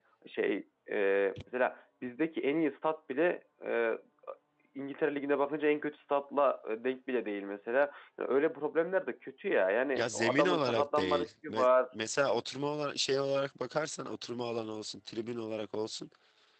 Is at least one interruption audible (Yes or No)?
Yes